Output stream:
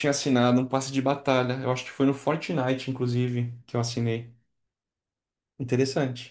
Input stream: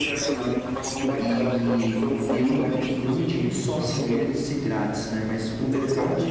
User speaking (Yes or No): Yes